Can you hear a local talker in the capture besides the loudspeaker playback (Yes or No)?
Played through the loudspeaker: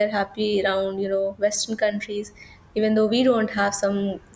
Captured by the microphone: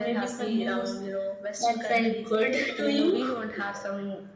Yes